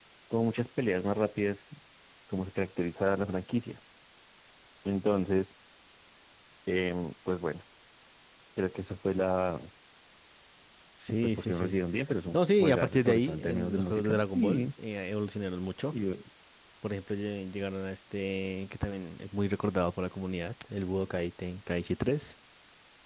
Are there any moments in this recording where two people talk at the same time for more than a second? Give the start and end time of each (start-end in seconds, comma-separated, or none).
12.3-14.7